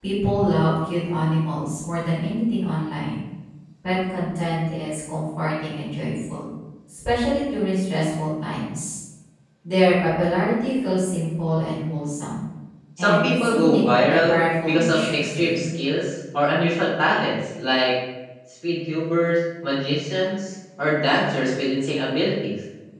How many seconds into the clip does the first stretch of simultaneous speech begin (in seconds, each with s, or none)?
13.0 s